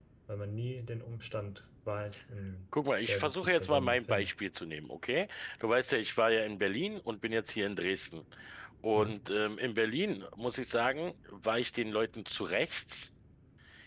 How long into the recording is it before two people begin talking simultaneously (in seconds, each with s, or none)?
3.0 s